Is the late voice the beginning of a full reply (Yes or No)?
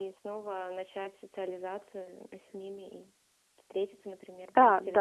Yes